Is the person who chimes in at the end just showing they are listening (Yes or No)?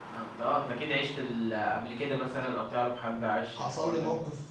No